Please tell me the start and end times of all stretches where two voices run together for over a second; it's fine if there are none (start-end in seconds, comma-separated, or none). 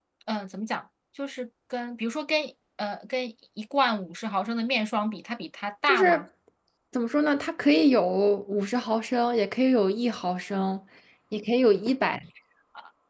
none